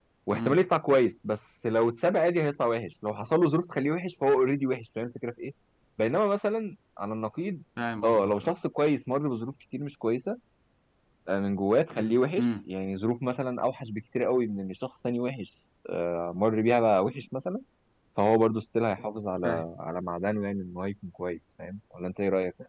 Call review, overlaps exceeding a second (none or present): none